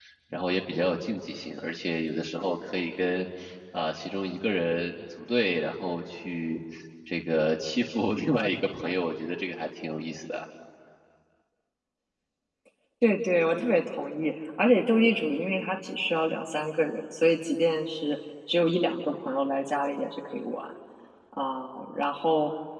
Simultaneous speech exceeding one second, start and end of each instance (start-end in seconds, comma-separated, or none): none